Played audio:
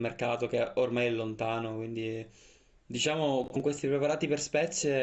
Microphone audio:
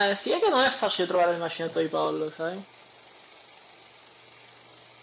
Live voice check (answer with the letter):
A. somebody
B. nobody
A